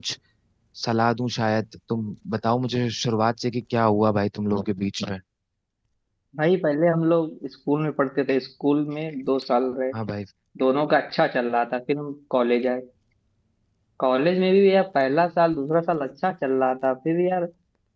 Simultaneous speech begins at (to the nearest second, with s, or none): none